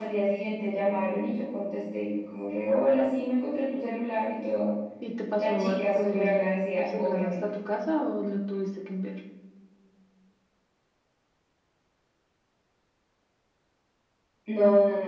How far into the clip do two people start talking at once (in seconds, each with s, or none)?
5.4 s